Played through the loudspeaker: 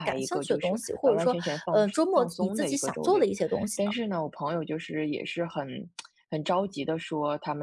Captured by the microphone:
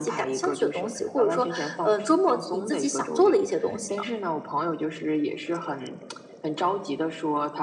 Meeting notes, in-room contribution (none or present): none